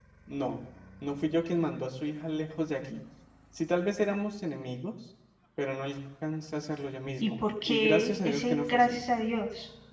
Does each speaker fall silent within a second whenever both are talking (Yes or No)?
No